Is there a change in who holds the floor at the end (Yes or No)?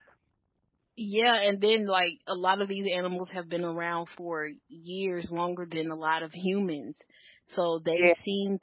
No